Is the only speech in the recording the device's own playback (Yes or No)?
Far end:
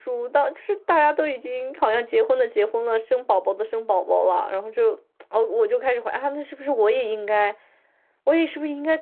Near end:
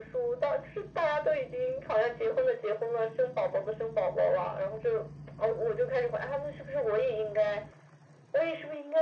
Yes